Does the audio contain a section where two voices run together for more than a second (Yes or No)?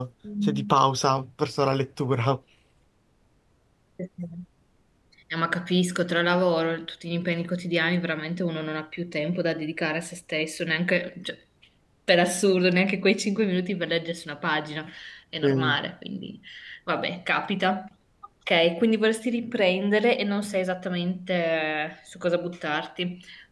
No